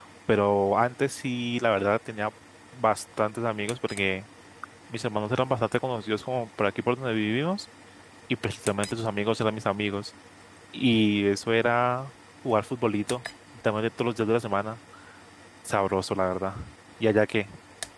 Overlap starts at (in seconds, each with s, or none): none